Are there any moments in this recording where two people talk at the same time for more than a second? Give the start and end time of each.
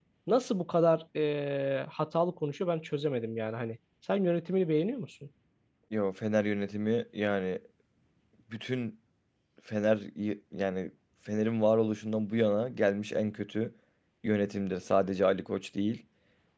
none

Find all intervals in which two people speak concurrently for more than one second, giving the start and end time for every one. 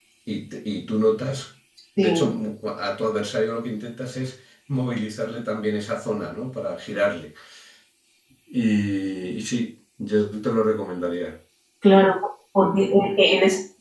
none

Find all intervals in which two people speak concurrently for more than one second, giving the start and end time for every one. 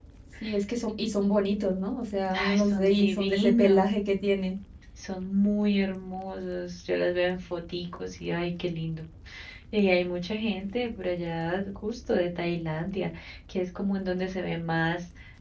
2.3-3.9

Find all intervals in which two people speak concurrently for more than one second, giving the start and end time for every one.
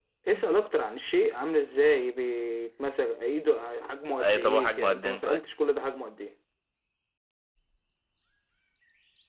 4.2-5.4

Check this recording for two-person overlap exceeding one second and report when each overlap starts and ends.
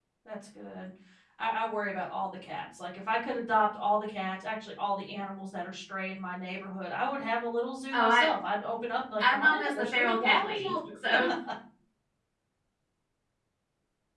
9.2-10.7

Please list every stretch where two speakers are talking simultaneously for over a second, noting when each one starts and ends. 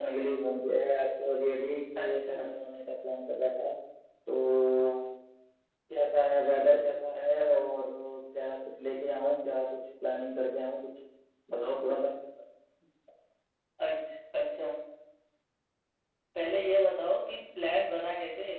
none

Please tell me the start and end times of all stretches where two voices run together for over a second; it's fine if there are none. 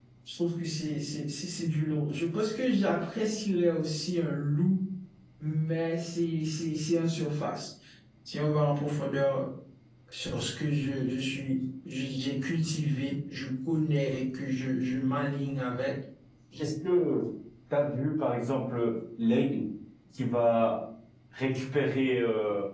none

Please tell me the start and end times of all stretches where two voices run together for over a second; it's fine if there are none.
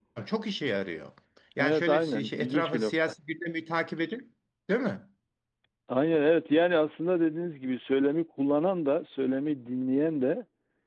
1.6-3.2

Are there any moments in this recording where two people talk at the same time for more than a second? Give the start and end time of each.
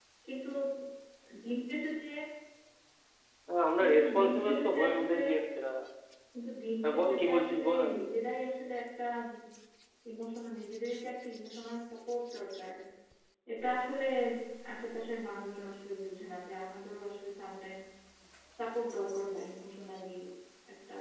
3.8-5.2, 6.8-8.2

